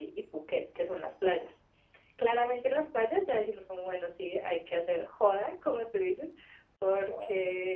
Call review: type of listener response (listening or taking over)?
listening